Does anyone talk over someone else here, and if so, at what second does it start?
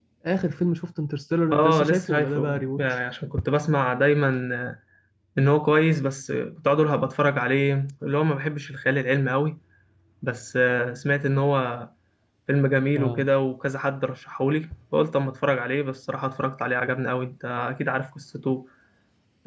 1.5 s

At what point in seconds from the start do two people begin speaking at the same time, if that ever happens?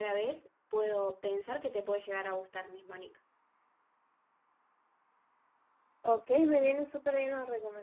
none

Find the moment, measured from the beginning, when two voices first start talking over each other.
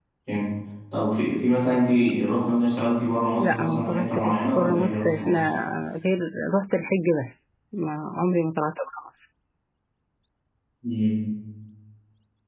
3.4 s

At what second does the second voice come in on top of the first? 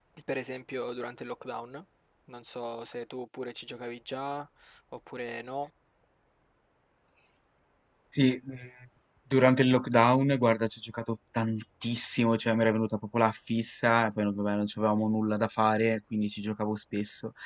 none

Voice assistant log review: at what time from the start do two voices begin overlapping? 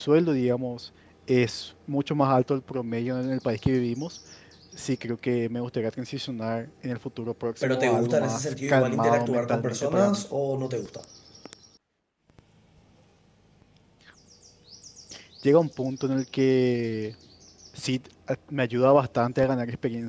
7.6 s

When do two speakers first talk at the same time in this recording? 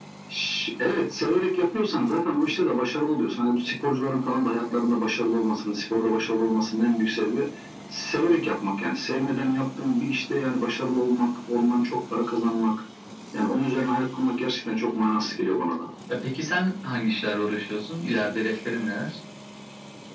none

